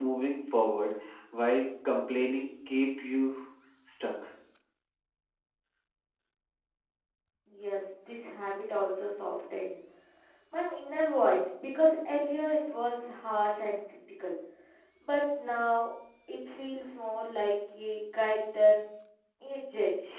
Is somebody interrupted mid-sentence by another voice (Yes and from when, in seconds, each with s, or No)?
No